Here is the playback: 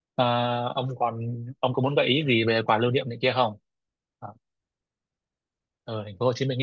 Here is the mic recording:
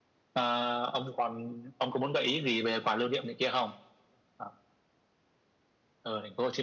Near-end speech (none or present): none